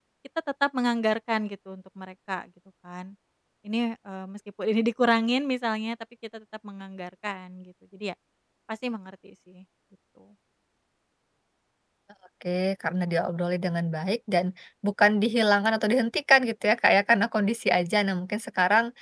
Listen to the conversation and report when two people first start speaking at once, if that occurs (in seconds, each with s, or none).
none